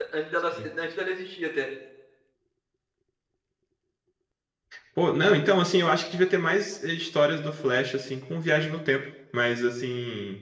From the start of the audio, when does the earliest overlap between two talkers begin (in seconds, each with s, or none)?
none